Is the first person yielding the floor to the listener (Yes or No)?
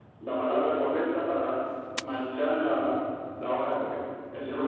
Yes